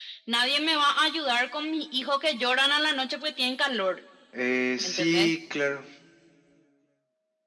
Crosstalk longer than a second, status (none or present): none